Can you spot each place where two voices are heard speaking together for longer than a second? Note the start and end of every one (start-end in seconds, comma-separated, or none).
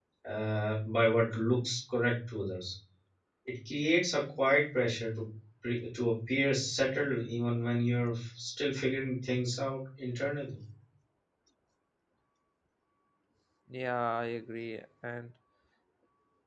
none